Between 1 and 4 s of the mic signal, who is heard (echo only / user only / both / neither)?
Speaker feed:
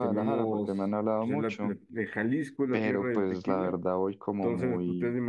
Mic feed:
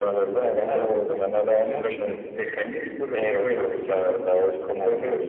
echo only